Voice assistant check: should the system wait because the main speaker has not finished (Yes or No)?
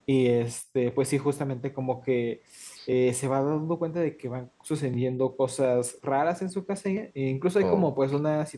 Yes